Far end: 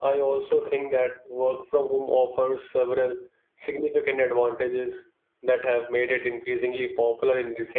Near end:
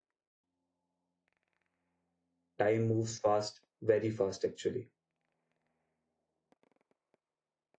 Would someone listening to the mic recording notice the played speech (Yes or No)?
No